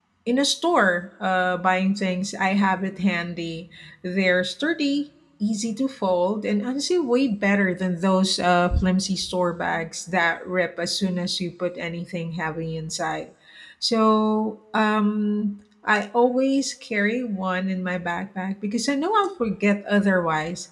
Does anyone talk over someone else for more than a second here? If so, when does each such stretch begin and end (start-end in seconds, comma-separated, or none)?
none